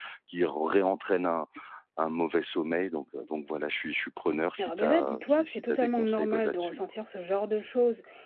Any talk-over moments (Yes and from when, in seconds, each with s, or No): Yes, from 4.6 s